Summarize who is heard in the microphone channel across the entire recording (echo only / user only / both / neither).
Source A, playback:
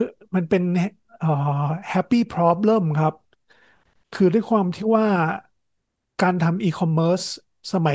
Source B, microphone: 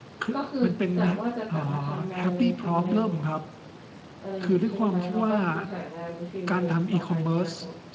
both